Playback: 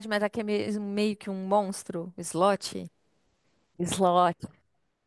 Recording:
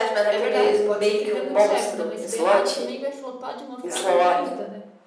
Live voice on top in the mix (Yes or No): No